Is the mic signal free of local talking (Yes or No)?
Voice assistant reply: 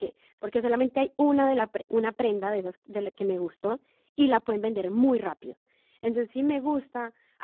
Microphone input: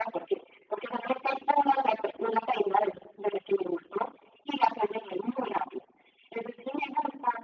Yes